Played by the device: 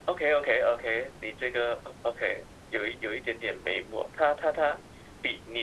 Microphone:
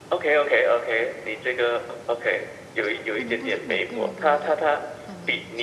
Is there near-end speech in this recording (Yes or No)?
Yes